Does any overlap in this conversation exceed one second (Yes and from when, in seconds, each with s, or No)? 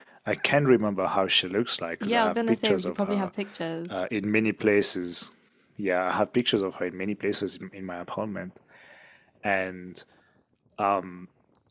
Yes, from 2.0 s